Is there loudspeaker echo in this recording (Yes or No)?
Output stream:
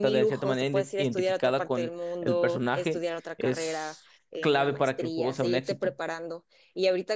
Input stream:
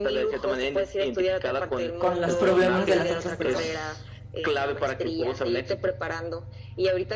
Yes